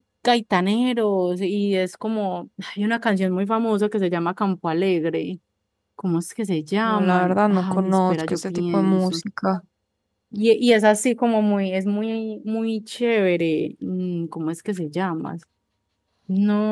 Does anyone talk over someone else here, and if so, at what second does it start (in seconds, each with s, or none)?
6.8 s